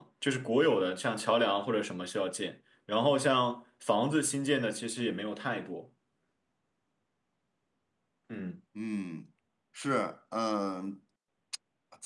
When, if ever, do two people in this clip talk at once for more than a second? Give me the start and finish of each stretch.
none

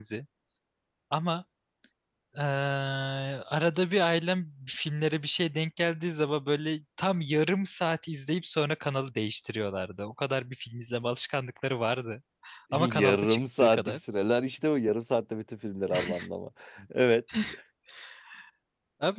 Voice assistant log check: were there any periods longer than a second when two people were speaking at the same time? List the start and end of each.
12.7-14.0

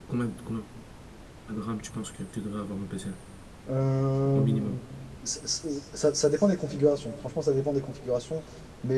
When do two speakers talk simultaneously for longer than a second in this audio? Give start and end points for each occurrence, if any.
none

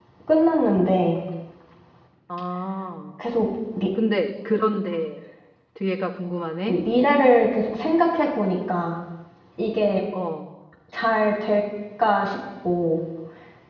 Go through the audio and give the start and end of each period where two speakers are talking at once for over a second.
none

